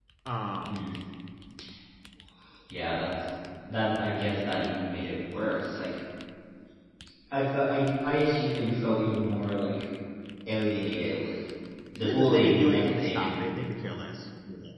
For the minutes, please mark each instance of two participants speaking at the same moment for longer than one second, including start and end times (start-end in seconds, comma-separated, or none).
12.0-13.4